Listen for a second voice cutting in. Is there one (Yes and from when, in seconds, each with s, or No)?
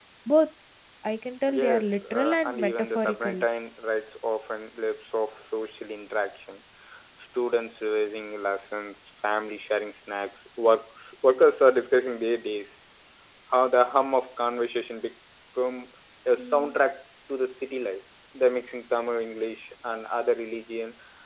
Yes, from 1.5 s